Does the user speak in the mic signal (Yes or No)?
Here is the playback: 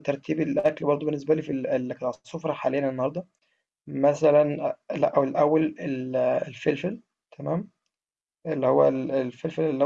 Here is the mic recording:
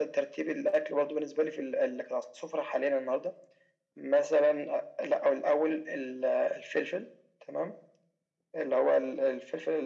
No